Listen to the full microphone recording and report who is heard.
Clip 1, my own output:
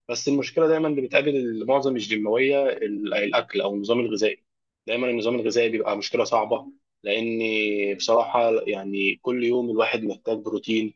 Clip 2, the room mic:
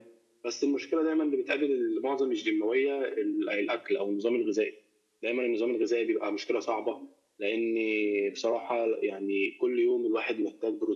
echo only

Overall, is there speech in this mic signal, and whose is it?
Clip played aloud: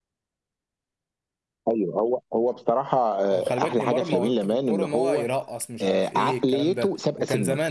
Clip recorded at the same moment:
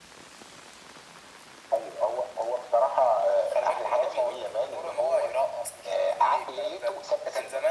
echo only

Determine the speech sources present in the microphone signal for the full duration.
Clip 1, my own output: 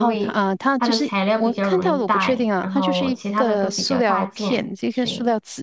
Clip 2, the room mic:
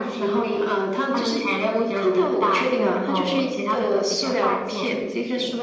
echo only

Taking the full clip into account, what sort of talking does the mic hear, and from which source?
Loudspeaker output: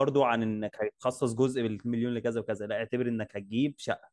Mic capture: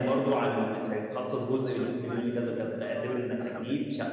both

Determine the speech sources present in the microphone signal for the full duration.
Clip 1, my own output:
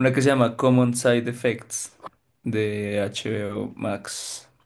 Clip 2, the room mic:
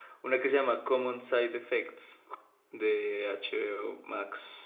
echo only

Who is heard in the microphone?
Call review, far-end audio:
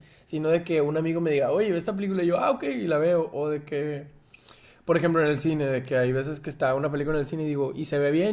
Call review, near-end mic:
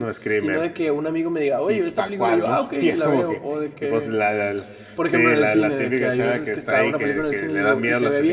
both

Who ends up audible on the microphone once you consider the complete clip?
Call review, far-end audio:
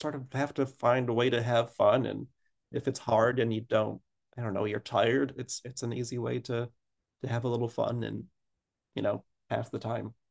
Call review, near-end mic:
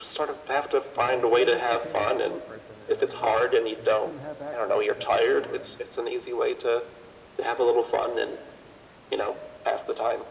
both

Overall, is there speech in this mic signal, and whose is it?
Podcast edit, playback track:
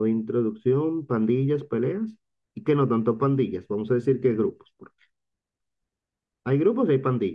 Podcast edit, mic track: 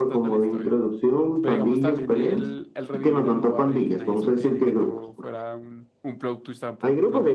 both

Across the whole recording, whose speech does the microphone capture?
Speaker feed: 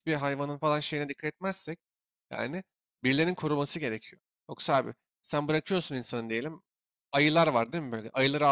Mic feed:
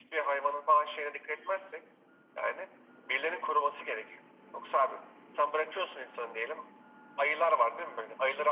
echo only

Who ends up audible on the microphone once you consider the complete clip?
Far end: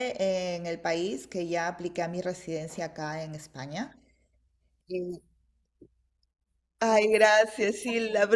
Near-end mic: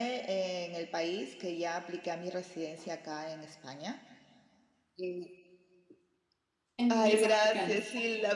both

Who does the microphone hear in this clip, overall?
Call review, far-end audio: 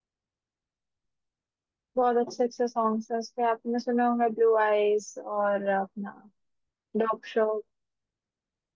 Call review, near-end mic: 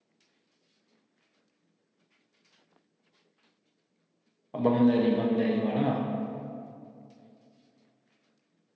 user only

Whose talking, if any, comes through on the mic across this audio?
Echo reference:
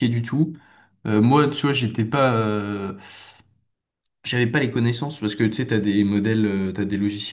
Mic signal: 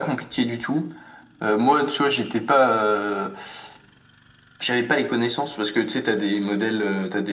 echo only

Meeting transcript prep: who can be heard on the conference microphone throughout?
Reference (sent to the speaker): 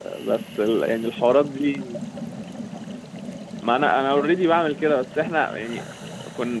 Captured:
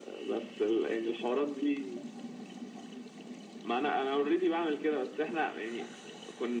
echo only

